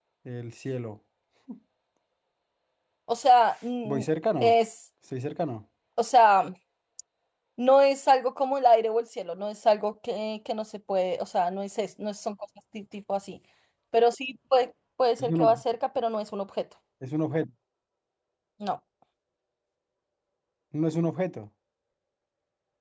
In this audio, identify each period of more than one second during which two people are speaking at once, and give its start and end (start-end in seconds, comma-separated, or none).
none